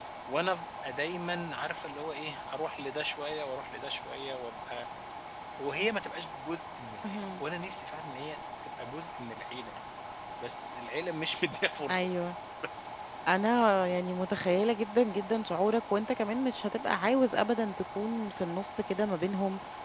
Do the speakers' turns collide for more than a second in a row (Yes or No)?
No